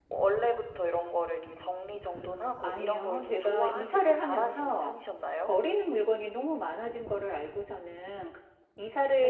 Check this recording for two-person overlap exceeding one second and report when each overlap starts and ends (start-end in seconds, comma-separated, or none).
2.6-4.9